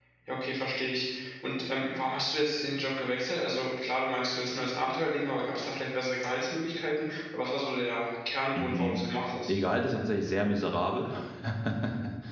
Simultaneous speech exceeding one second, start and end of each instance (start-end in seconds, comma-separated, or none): none